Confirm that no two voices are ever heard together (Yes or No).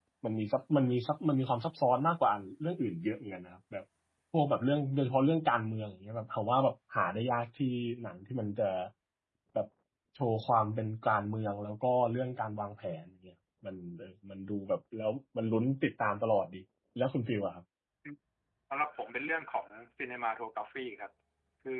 Yes